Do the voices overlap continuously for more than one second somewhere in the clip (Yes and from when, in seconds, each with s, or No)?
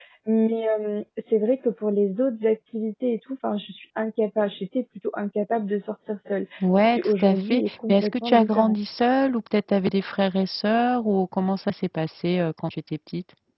Yes, from 6.6 s